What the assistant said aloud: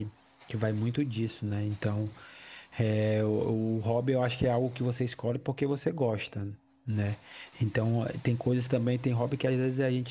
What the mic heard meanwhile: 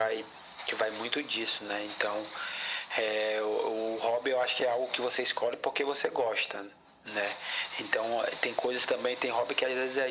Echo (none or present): present